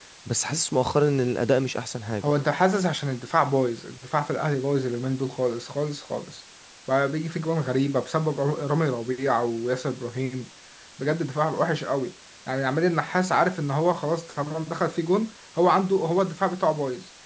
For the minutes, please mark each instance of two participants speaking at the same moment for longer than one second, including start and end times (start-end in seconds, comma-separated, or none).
none